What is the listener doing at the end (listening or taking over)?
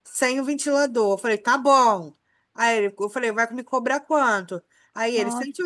listening